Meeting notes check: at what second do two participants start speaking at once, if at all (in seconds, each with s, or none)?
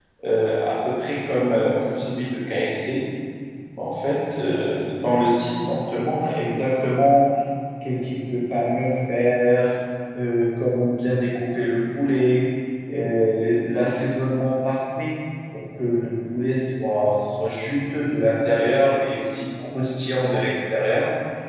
none